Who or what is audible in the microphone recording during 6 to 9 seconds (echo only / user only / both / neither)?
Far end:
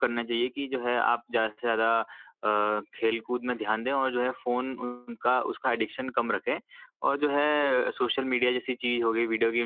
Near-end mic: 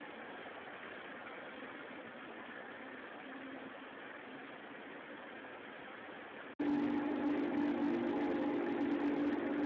neither